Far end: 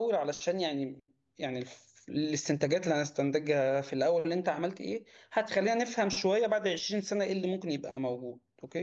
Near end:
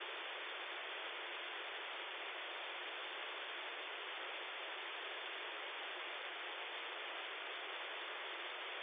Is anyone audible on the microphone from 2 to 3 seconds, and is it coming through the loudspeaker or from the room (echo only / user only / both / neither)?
neither